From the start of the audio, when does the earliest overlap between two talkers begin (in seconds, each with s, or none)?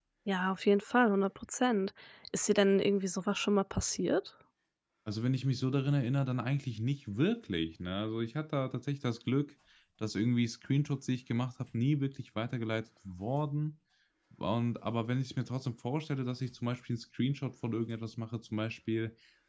none